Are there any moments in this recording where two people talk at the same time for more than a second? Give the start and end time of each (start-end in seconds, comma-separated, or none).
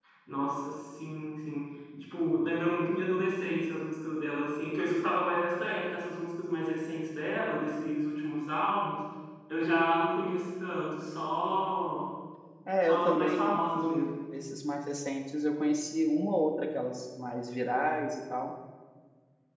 12.9-14.1